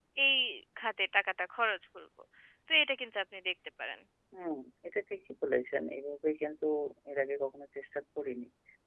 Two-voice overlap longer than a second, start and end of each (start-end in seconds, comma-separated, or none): none